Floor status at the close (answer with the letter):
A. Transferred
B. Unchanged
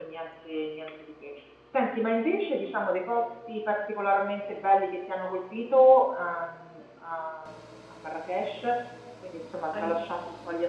B